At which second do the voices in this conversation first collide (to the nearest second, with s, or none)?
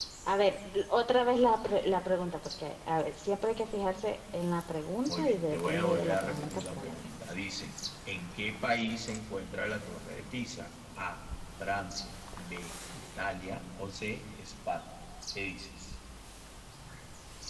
5 s